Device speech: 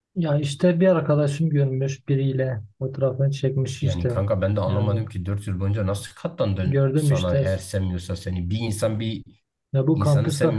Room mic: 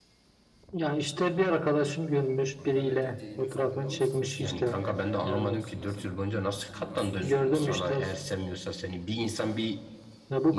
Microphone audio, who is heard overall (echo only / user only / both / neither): both